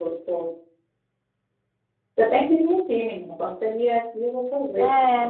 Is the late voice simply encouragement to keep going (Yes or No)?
No